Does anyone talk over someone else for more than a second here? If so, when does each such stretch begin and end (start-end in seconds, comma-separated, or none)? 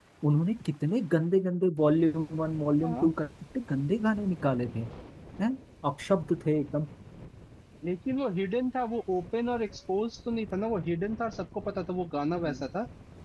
none